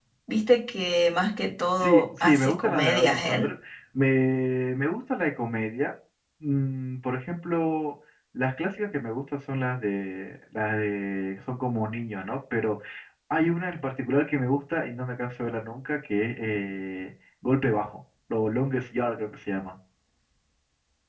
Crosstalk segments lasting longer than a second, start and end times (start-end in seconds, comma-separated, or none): 1.8-3.5